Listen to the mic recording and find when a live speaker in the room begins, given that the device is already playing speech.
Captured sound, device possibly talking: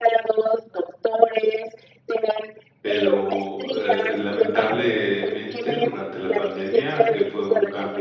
3 s

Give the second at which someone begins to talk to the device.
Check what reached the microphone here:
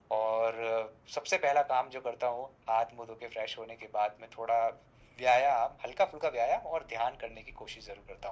none

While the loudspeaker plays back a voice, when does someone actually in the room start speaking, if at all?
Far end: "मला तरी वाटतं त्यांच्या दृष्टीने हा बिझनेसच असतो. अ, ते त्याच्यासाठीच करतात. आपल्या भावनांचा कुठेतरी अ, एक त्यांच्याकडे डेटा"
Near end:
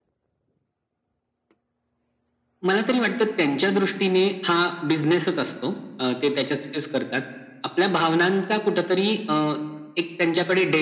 none

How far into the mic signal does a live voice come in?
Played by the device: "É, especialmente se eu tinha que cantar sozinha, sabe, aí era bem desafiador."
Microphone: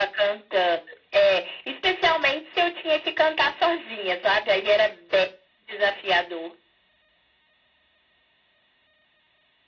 none

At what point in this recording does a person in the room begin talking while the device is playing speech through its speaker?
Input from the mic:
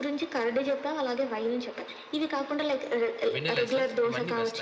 3 s

